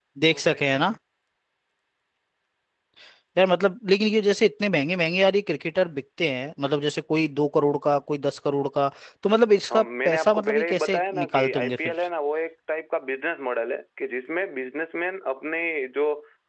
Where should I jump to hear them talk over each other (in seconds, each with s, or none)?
9.7 s